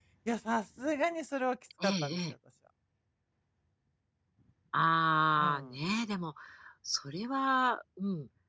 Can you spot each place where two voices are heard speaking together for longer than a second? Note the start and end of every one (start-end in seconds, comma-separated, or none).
none